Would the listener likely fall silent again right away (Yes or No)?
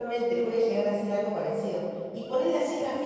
Yes